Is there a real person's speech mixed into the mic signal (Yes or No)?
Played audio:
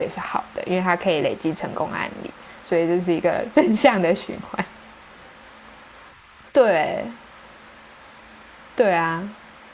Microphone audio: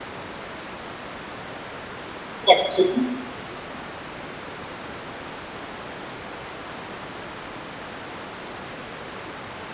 Yes